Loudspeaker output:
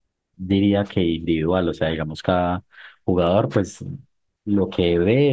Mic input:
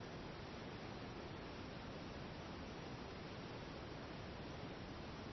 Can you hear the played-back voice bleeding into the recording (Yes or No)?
No